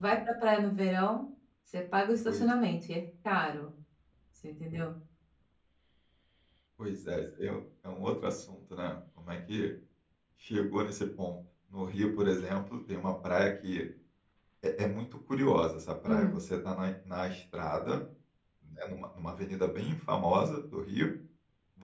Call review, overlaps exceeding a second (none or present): none